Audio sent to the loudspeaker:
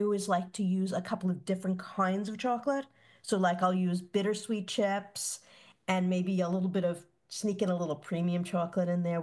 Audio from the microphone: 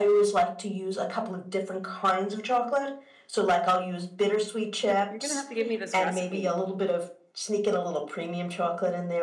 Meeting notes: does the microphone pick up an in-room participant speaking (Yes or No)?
Yes